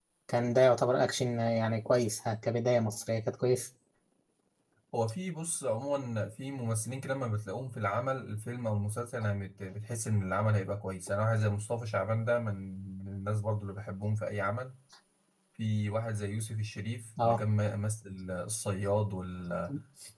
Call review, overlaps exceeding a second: none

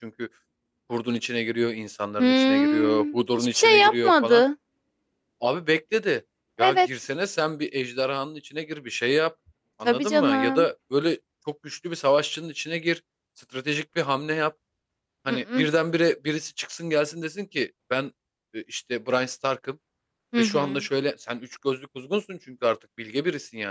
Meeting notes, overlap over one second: present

